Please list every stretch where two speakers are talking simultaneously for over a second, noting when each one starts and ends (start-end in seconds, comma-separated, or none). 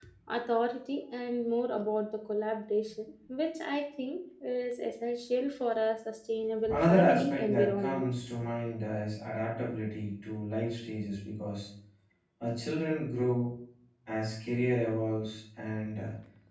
6.7-8.0